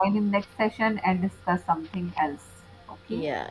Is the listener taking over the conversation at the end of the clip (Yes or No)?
Yes